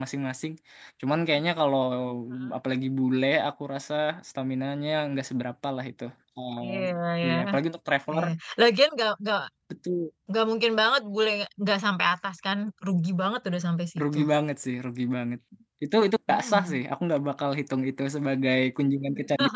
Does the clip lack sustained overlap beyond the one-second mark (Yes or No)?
Yes